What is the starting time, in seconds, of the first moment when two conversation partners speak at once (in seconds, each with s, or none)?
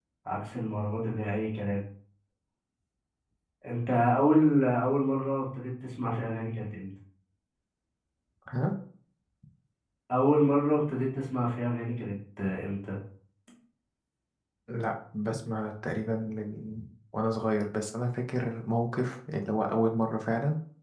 none